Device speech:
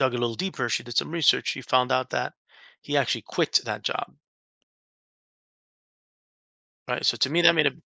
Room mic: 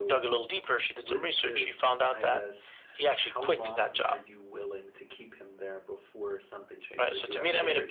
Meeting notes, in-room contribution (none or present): present